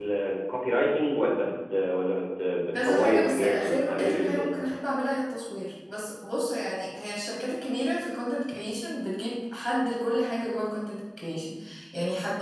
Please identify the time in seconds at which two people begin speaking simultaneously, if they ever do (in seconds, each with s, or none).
2.7 s